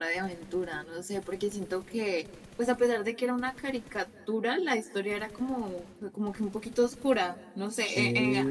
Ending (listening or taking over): listening